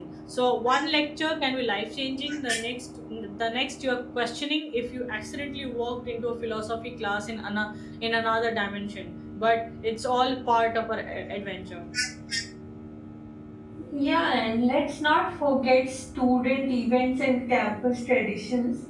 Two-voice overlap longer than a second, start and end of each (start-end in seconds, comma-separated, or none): none